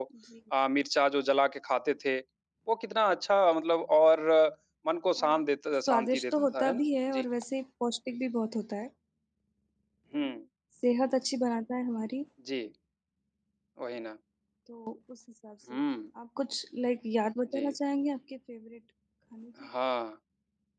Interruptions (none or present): present